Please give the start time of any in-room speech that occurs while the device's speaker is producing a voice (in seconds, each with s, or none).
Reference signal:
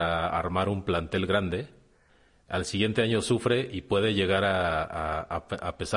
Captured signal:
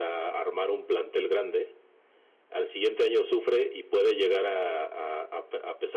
none